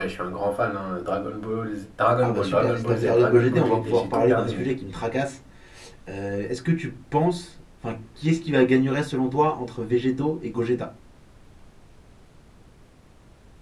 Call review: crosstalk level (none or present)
present